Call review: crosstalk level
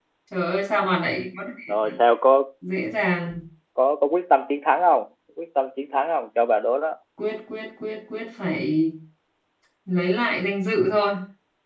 none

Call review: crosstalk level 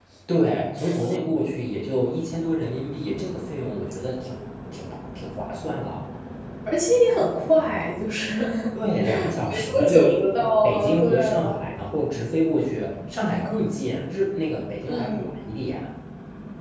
present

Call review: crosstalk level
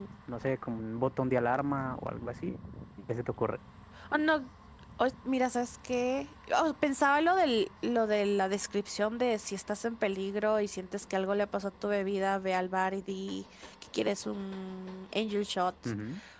none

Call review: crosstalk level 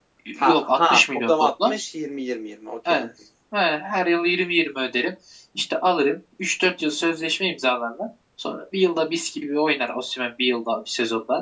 present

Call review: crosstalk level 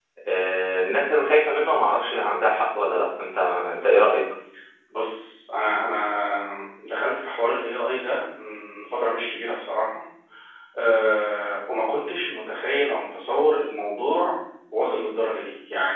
none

